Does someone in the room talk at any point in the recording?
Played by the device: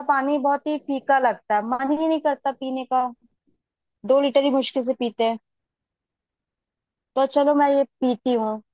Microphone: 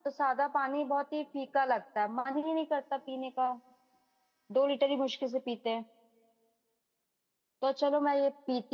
No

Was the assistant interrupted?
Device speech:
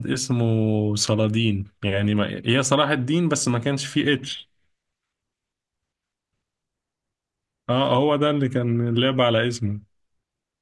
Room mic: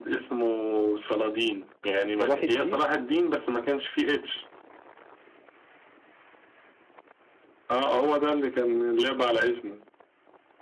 Yes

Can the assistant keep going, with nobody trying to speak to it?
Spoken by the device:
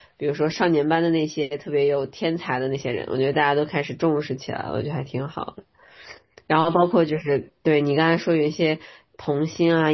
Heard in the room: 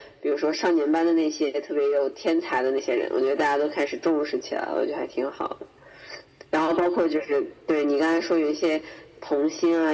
Yes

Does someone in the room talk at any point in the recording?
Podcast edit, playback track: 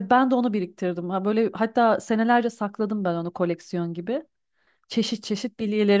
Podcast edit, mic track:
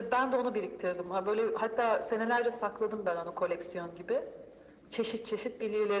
No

